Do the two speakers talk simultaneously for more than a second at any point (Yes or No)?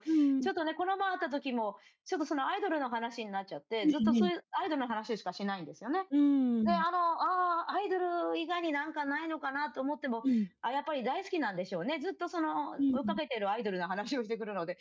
No